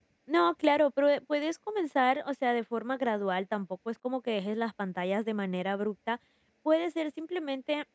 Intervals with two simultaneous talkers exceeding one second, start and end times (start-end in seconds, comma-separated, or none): none